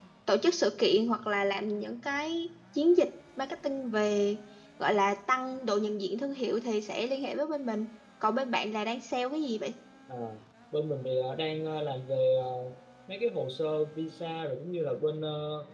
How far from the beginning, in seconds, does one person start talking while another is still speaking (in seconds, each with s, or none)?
none